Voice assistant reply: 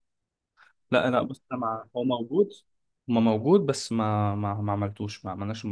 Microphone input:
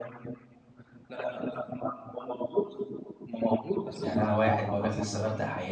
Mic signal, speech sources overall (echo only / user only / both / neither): both